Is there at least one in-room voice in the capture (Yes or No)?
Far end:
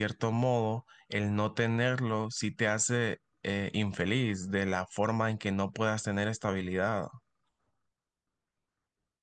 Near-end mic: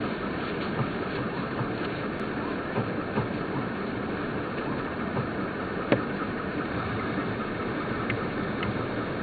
No